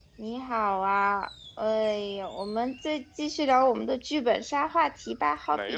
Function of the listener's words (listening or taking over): taking over